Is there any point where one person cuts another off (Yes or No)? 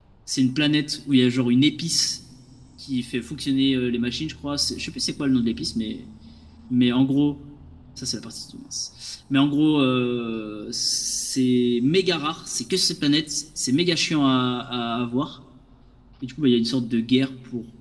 No